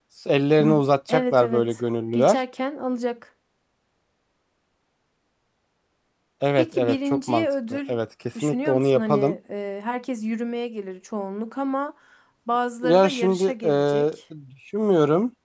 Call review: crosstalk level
present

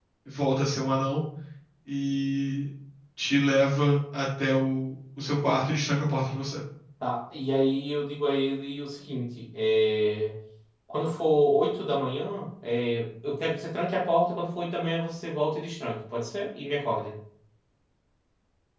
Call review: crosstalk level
none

